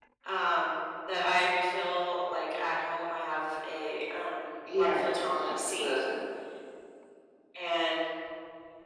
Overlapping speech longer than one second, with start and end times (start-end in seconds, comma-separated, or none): 4.8-6.0